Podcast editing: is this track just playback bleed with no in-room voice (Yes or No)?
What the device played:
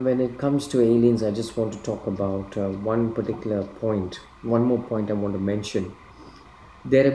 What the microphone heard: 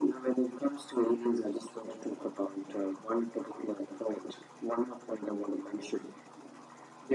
Yes